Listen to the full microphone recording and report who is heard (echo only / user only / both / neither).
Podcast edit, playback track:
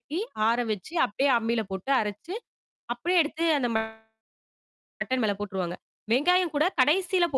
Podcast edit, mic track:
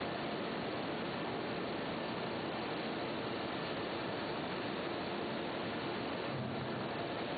neither